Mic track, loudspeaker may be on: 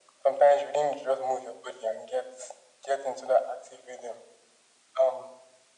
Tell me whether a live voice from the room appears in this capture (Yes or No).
No